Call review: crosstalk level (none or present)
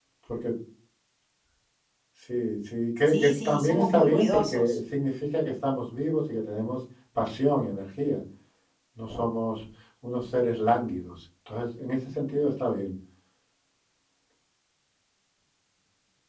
present